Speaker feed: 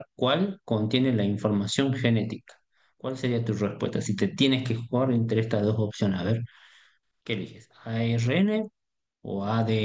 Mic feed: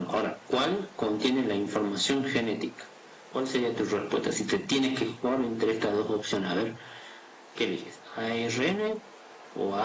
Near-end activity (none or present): none